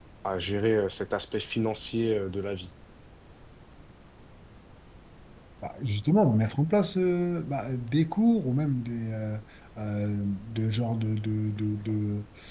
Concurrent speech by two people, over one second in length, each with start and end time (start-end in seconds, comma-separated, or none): none